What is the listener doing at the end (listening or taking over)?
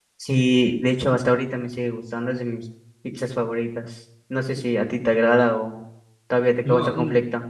taking over